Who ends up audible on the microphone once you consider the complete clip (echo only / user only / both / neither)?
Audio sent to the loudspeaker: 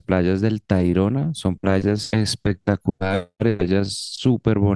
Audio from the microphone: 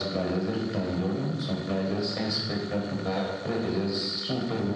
echo only